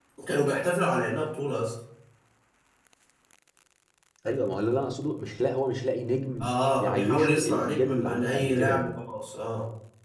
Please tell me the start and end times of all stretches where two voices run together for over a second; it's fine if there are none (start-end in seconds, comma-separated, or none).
6.4-8.9